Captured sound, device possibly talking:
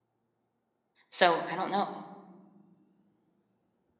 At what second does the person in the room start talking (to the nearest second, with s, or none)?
1 s